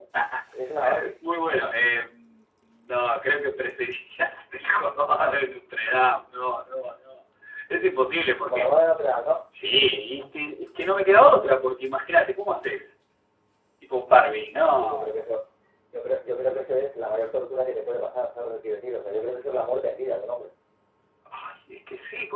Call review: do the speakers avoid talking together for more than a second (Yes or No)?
Yes